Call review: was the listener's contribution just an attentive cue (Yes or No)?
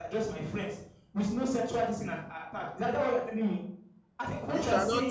No